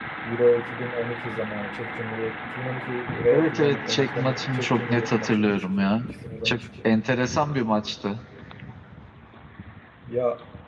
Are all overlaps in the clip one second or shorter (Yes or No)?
No